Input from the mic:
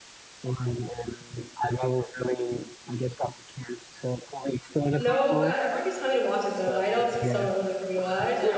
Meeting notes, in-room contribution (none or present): present